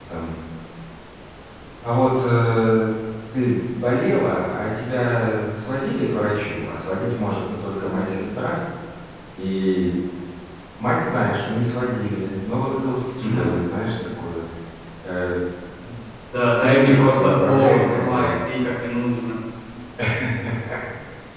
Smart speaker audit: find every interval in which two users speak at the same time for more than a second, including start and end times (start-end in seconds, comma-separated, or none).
16.5-18.3